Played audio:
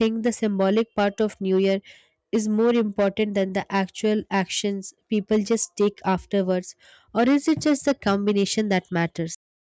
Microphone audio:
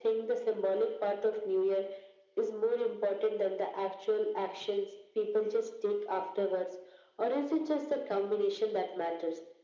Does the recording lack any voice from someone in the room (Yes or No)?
Yes